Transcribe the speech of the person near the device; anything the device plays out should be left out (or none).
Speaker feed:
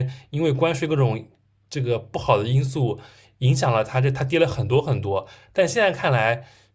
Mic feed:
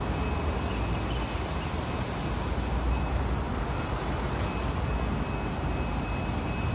none